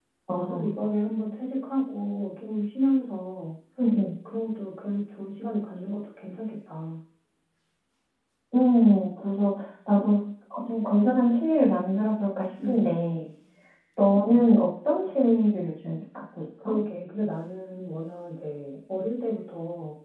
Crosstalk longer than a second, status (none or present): none